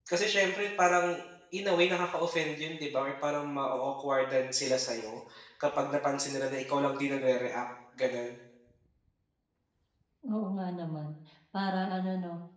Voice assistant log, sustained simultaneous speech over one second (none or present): none